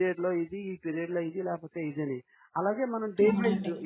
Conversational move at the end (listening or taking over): listening